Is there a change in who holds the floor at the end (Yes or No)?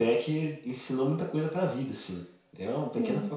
Yes